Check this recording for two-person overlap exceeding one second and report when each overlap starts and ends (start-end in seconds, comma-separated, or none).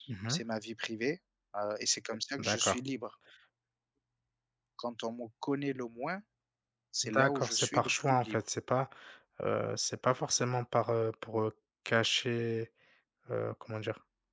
7.0-8.4